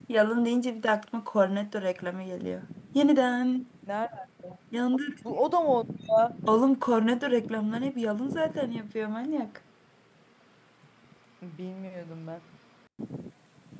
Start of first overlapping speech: none

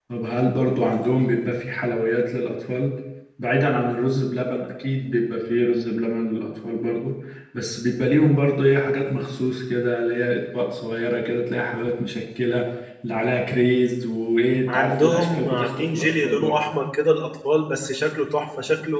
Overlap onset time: 15 s

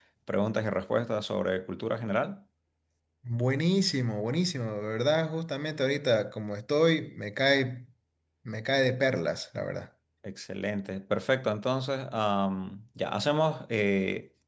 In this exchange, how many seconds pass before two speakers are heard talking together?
none

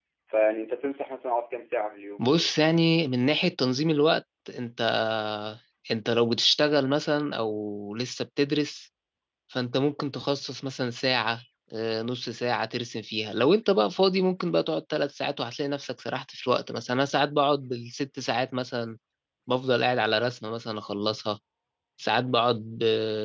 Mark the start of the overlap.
none

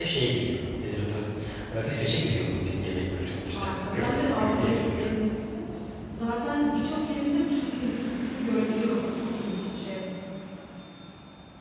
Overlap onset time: 4 s

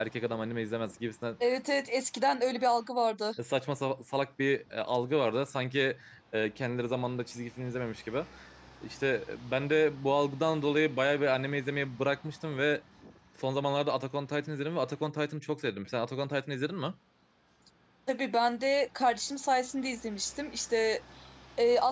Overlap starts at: none

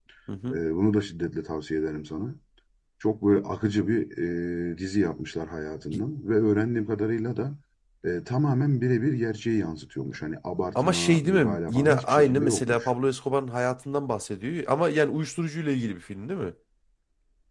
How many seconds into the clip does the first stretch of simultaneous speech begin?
11 s

